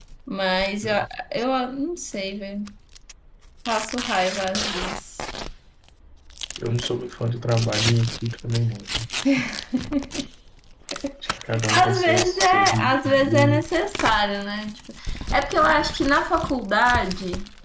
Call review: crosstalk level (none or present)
present